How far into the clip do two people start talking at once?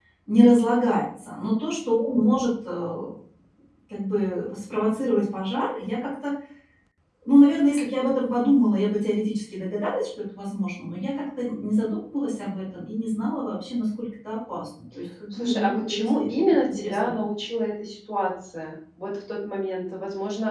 15.3 s

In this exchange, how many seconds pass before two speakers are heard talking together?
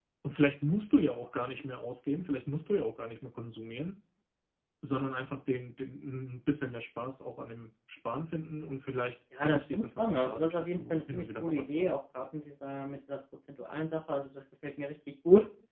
9.4 s

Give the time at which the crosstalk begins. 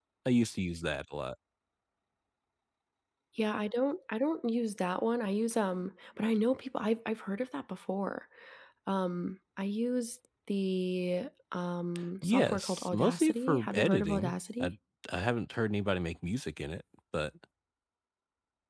12.2 s

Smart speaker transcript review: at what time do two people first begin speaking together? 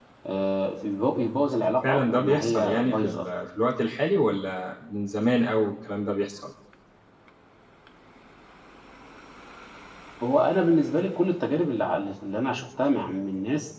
1.8 s

